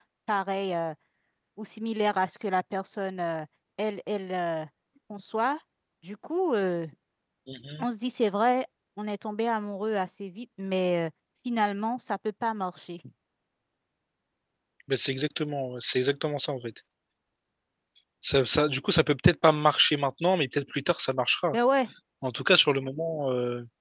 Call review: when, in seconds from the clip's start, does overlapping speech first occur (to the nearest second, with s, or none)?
none